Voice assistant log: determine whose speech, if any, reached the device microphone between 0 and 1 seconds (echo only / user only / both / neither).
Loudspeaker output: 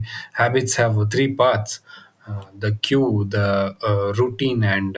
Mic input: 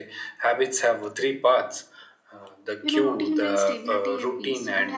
echo only